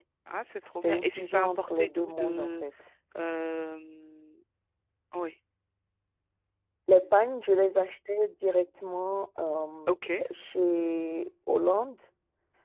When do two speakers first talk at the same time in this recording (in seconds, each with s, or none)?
0.7 s